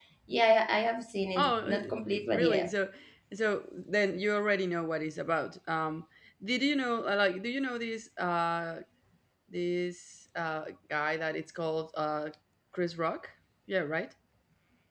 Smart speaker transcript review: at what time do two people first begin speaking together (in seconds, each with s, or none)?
1.4 s